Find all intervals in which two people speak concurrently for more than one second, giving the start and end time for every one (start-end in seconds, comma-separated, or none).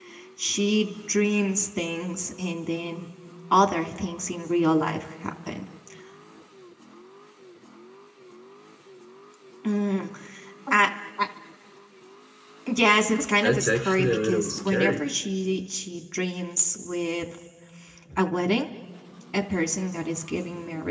13.4-15.0